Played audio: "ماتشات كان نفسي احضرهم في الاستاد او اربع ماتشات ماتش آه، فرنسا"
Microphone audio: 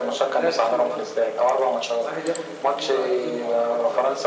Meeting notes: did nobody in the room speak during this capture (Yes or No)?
No